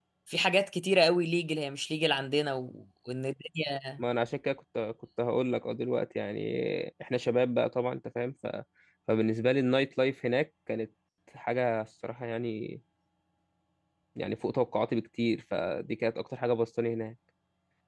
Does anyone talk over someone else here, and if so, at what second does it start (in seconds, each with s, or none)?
none